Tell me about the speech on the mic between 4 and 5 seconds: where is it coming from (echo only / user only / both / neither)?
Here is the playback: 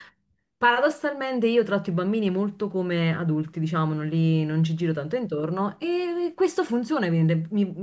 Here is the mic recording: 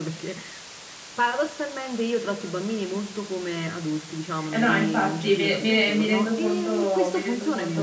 both